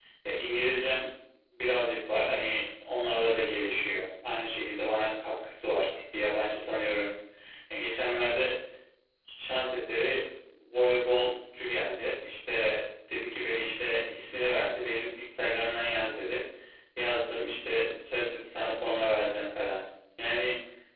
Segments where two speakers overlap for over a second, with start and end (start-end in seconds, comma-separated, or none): none